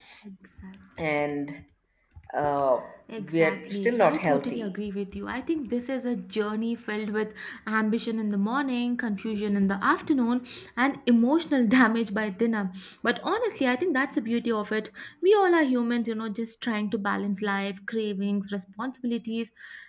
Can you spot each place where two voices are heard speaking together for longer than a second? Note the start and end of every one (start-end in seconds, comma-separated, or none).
3.2-4.7